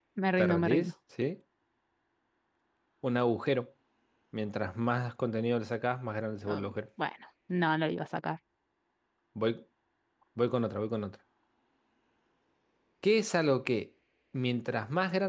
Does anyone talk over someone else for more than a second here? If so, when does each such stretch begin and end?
none

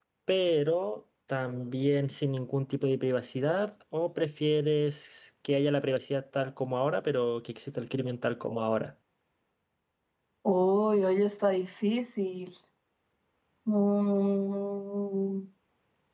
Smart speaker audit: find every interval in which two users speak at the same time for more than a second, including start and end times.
none

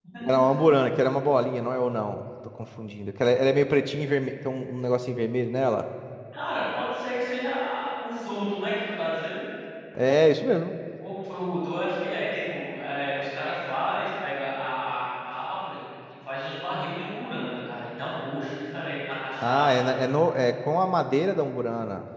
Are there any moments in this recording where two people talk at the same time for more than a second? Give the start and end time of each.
none

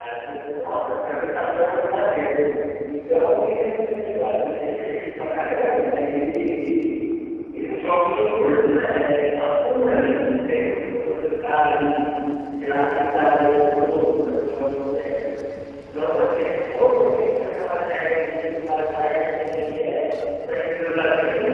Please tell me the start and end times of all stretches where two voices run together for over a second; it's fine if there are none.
none

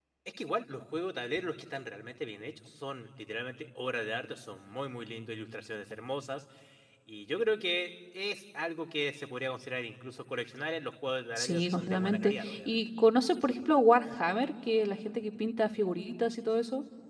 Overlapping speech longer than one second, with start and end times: 11.4-12.8

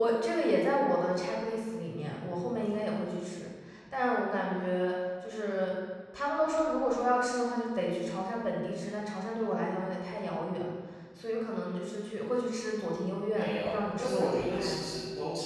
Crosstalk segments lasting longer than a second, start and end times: 13.3-14.9

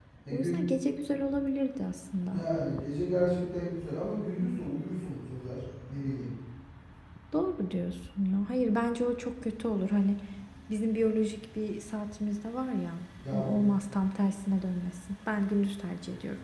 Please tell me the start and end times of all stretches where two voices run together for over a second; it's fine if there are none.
none

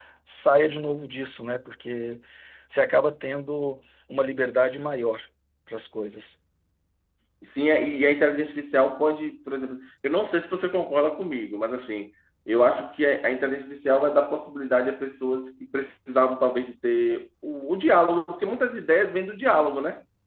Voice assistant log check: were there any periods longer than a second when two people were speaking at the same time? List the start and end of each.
none

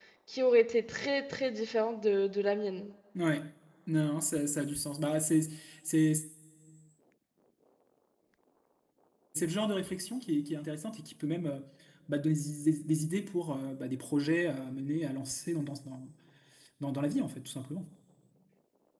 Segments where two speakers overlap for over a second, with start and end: none

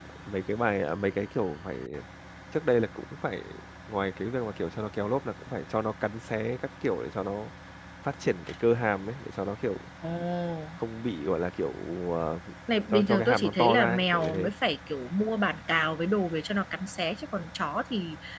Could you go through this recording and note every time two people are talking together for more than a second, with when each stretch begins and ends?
12.9-14.5

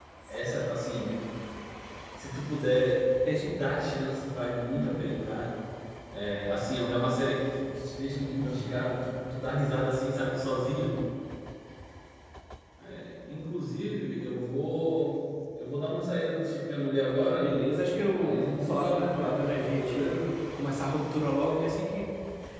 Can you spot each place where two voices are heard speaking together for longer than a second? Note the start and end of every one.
18.1-20.1

